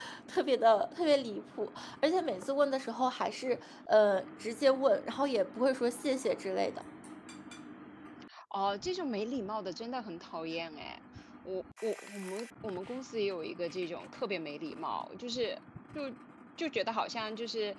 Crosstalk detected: No

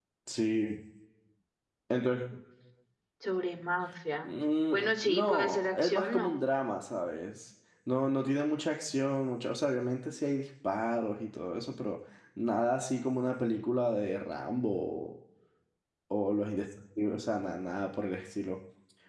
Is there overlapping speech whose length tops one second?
Yes, from 4.7 s

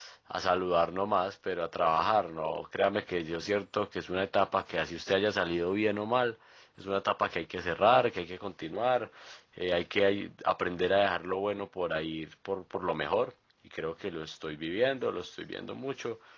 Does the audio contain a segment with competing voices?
No

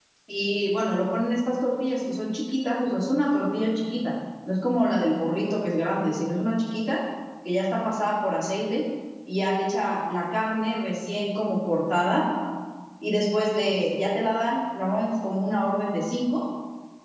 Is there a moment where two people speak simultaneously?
No

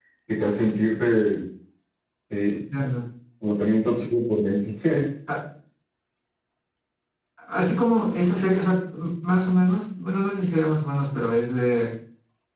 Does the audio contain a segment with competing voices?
No

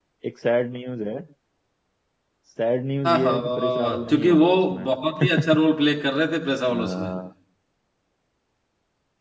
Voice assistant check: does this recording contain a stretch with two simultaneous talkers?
Yes, from 3.0 s

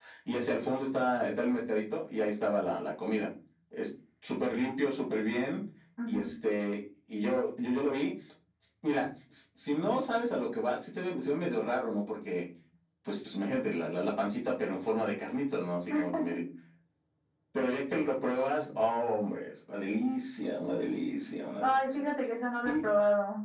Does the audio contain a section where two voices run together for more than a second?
No

